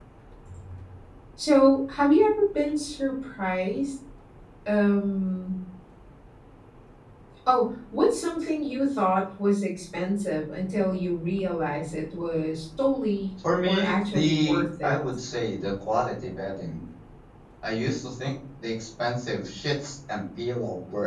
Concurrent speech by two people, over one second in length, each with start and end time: 13.6-15.0

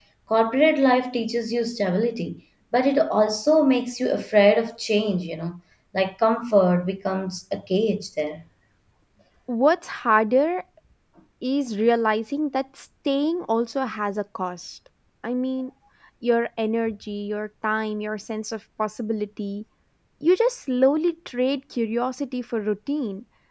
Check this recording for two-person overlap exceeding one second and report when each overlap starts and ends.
none

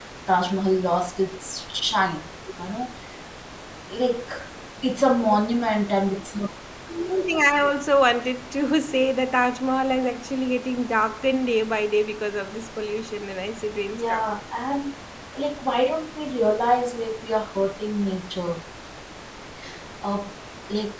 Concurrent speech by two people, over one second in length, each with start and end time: none

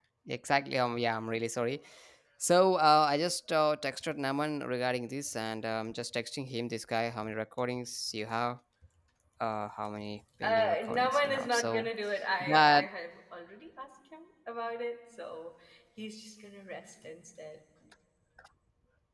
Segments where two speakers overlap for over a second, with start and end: 10.4-11.9

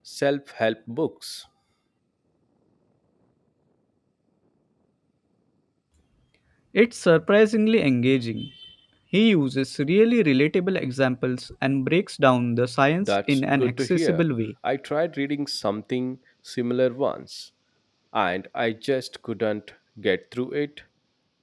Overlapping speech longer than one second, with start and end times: 13.0-14.2

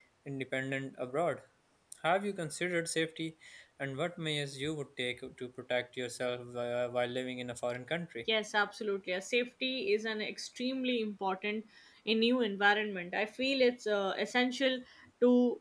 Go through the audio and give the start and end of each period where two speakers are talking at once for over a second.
none

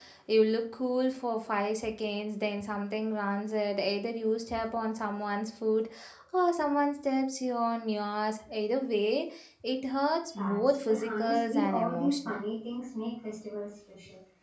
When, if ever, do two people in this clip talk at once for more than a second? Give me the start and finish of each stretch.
10.4-12.4

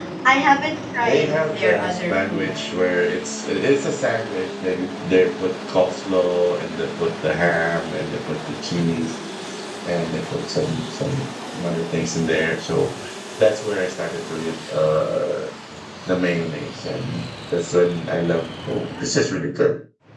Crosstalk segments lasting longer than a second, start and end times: 1.0-2.5

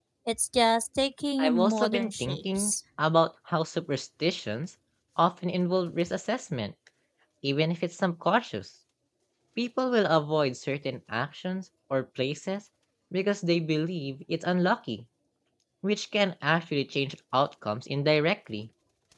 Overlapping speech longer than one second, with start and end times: 1.4-2.7

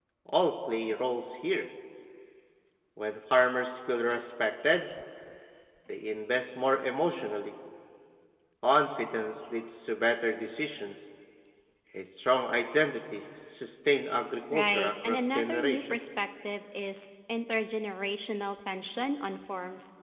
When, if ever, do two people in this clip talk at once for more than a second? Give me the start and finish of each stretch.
14.5-16.0

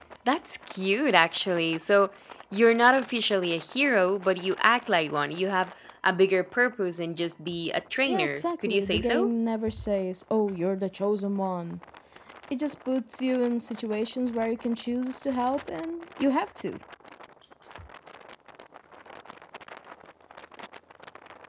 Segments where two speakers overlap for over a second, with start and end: 8.1-9.3

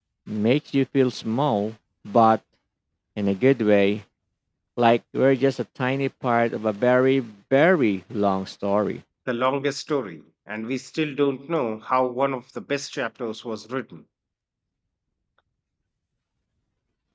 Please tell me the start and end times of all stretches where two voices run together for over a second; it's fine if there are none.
none

